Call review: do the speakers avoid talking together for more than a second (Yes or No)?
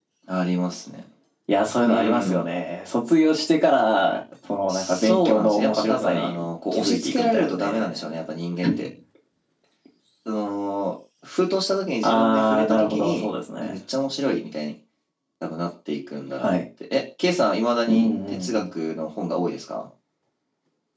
No